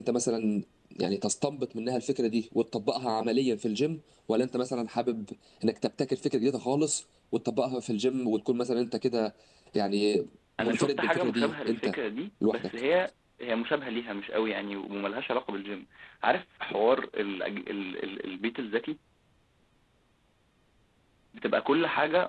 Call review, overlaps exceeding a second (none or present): present